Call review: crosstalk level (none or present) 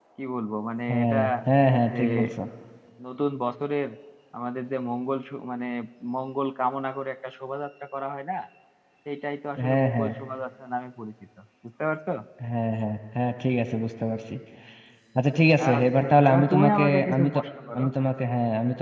present